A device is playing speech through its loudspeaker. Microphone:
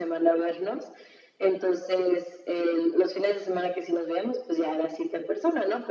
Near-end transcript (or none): none